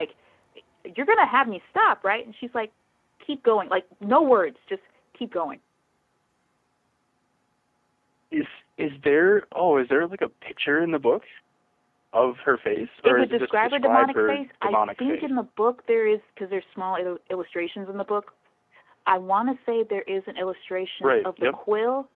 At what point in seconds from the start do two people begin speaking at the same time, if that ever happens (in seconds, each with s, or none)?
13.0 s